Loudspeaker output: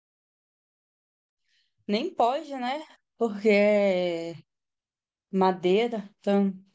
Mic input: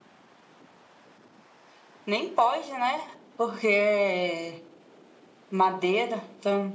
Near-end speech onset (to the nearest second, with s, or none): none